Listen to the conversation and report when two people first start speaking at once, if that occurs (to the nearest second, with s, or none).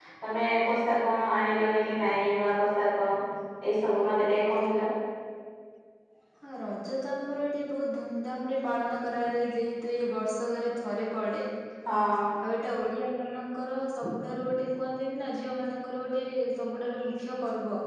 none